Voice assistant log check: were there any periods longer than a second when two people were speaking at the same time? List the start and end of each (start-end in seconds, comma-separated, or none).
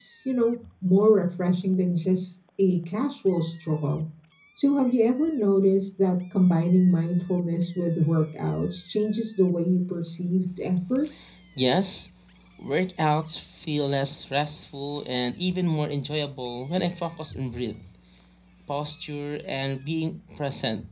none